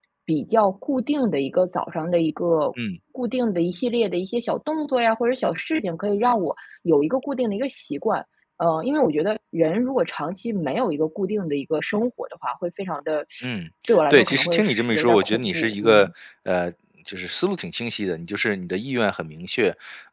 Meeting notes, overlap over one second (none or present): present